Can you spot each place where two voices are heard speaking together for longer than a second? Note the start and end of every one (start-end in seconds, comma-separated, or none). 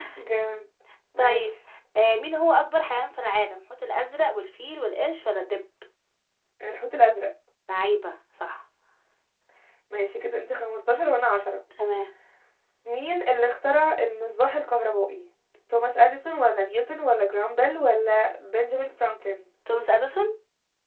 none